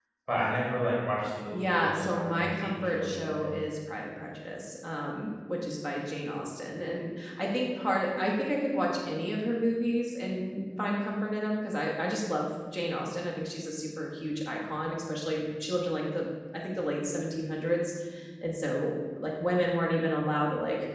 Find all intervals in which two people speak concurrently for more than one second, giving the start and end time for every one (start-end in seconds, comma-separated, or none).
1.5-3.6